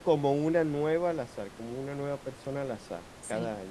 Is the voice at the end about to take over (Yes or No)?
Yes